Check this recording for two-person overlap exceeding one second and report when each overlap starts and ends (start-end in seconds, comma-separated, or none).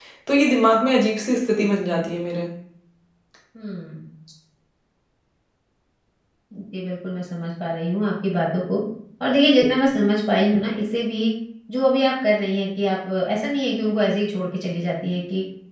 none